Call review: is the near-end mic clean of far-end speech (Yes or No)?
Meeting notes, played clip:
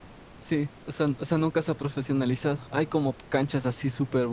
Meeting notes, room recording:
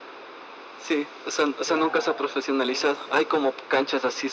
No